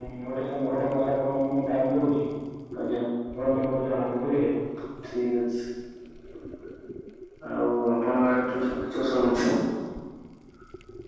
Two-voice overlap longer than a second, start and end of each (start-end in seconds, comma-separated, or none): none